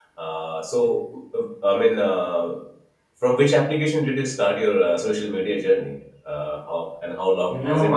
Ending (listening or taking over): taking over